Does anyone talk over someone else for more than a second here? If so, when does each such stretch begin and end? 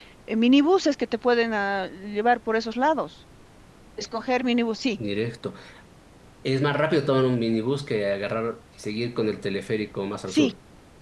none

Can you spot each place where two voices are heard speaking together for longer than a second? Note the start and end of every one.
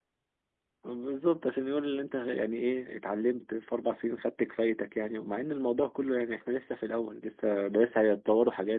none

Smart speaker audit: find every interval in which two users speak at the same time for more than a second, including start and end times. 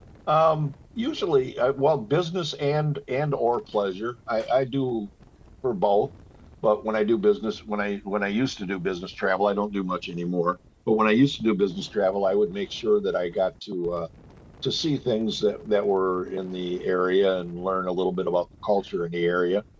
none

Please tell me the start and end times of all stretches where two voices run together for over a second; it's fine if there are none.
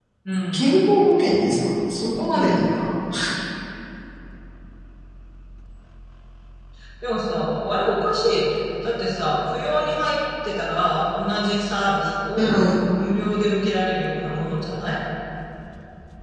none

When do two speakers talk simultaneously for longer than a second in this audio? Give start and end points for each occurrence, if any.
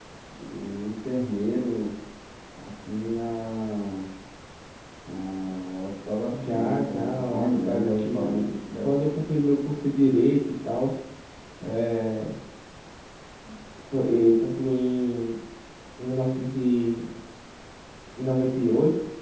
6.5-8.9

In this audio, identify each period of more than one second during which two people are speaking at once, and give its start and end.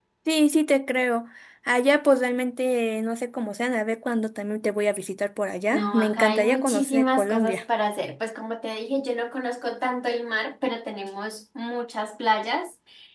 5.7-7.6

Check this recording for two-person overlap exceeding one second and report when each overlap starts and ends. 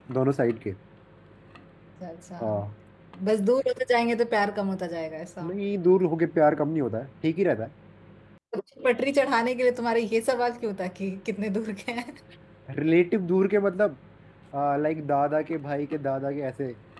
none

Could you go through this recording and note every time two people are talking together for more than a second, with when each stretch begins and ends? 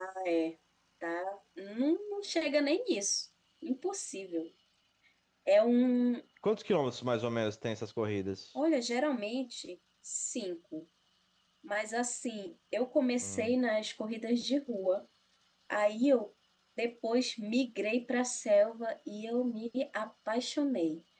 none

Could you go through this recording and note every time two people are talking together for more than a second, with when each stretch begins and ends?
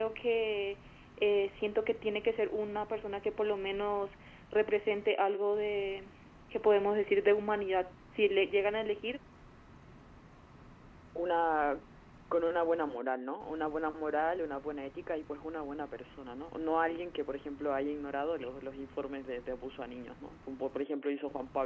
none

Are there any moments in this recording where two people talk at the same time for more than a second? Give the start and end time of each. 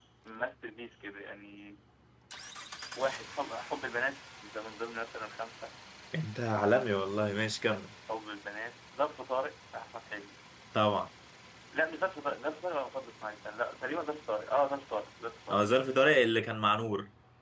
none

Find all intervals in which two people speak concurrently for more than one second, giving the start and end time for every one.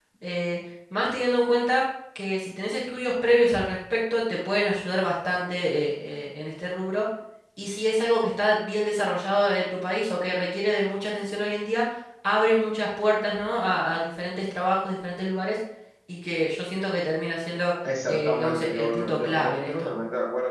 18.1-19.9

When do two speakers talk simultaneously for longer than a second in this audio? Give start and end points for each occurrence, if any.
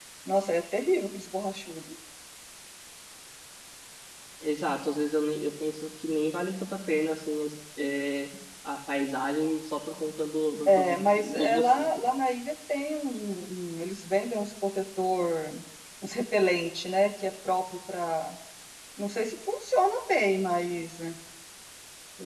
10.7-11.9

